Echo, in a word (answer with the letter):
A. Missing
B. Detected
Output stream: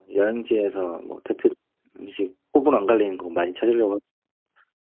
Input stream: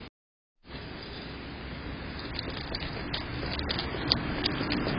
A